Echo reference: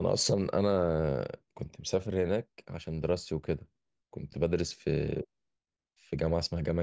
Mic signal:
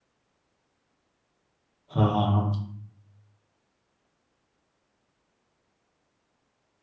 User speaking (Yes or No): Yes